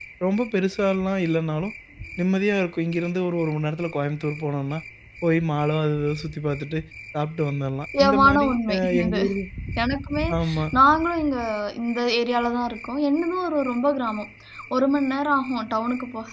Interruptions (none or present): present